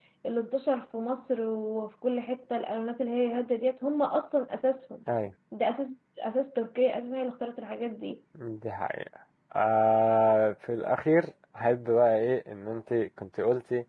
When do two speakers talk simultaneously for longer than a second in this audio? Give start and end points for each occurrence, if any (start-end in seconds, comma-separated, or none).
none